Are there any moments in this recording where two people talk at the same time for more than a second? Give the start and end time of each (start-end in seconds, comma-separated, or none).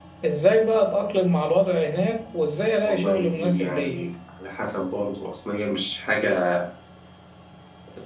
2.8-4.1